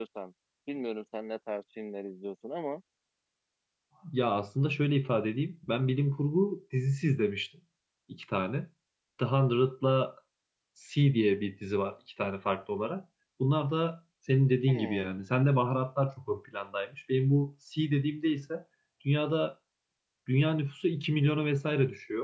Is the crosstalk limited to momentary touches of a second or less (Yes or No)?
Yes